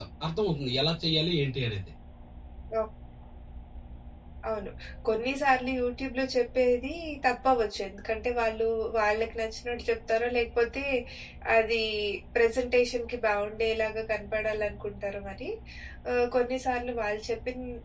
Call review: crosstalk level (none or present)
none